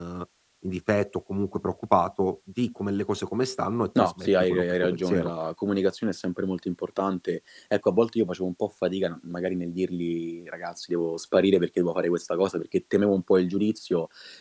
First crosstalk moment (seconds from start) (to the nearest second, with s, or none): 4 s